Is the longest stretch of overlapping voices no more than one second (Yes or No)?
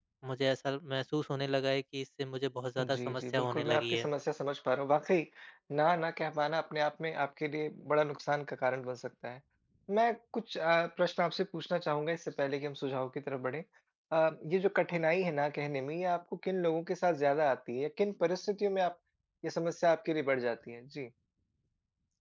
No